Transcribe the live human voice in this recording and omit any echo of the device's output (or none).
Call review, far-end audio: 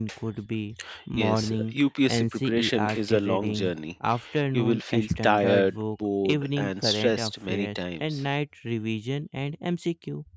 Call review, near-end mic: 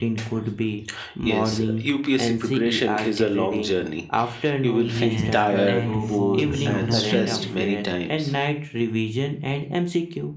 Yes, and for geography,